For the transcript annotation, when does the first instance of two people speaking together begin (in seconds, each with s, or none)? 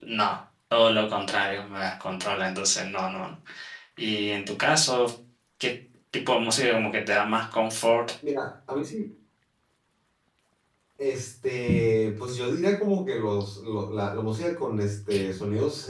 none